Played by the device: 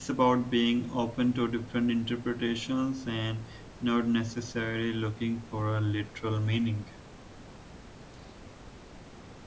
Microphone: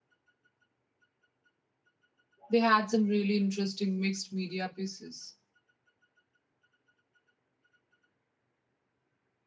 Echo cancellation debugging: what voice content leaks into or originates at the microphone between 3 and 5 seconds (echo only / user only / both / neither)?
user only